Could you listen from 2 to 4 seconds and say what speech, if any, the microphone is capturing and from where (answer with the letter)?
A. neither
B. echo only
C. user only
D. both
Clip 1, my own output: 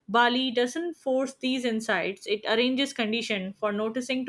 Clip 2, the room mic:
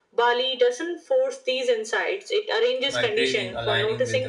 D